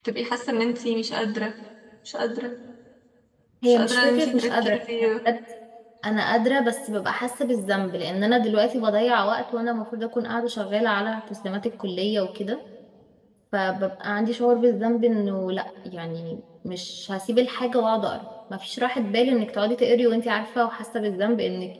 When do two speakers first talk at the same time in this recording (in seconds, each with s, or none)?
3.7 s